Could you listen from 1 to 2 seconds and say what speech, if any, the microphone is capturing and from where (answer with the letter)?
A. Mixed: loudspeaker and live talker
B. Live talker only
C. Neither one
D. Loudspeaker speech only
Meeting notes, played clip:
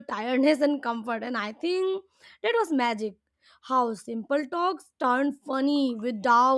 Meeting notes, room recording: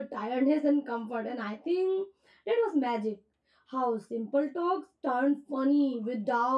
D